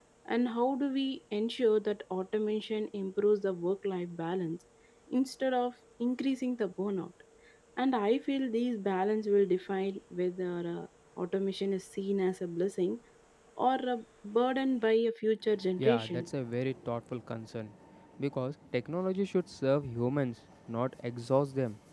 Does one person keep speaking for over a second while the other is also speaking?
No

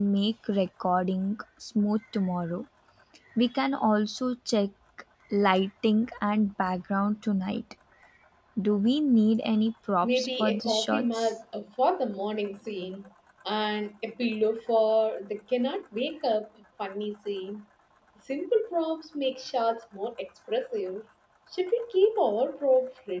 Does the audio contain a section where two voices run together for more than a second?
Yes, from 10.0 s

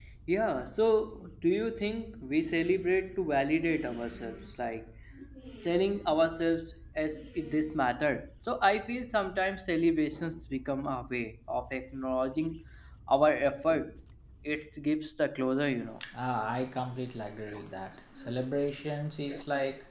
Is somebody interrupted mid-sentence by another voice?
No

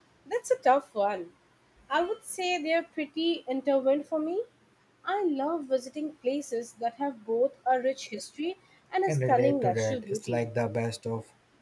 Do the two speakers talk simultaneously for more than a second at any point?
Yes, from 9.1 s

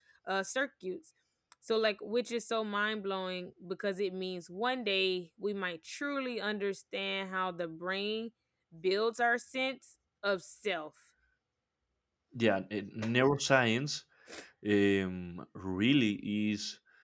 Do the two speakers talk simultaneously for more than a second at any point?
No

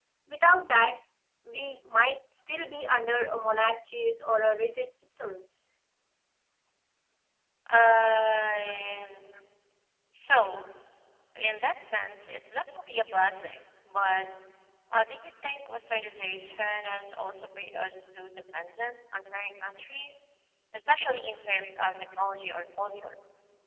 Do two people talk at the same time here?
No

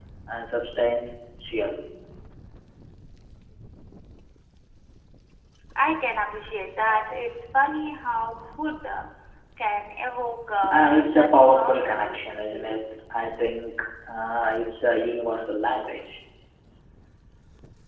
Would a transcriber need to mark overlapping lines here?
Yes, from 10.7 s

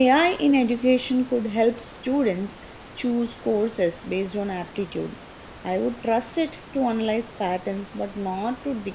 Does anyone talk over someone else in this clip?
No

